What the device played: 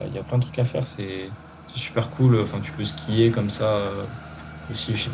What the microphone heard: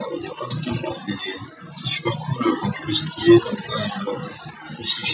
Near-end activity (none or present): none